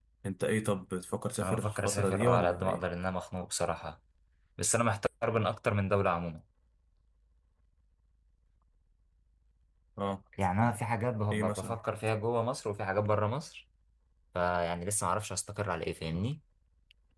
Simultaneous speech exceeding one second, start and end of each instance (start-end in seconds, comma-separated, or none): 1.4-2.8